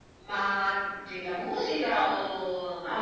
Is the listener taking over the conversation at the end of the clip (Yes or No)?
Yes